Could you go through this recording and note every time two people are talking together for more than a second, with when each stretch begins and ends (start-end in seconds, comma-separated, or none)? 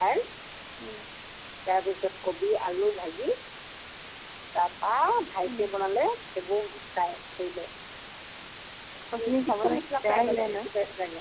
9.1-10.6